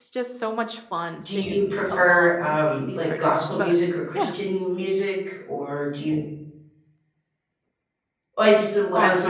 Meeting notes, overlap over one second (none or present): present